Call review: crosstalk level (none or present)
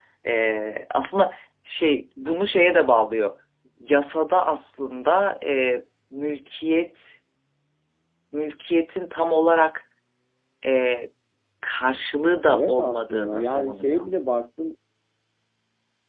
present